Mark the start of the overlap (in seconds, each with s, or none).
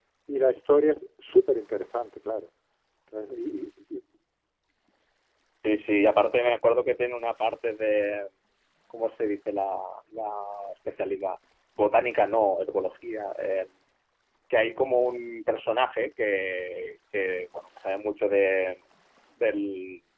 none